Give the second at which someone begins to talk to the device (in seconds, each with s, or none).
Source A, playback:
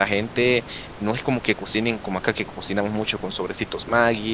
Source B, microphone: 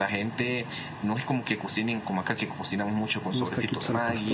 3.3 s